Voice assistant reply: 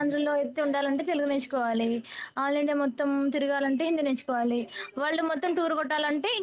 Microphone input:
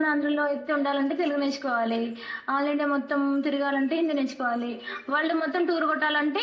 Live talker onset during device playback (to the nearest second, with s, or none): none